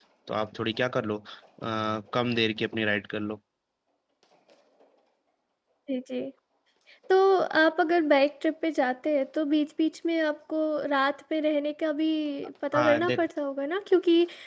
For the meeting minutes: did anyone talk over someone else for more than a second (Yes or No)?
No